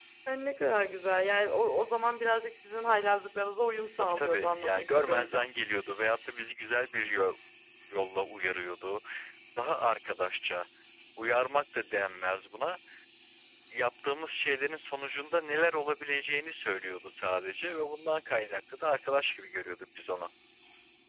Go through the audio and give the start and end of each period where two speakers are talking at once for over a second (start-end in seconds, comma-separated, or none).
4.0-5.5